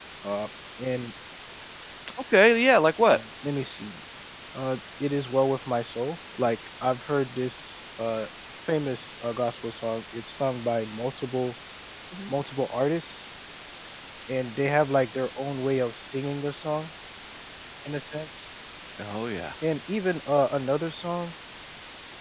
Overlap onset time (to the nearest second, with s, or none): none